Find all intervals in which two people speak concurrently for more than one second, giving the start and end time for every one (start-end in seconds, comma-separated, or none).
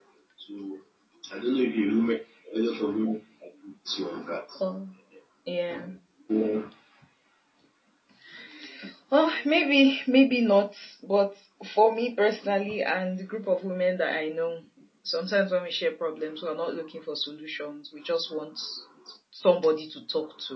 none